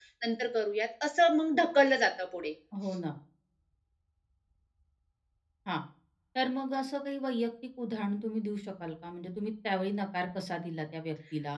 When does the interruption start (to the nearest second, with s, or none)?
none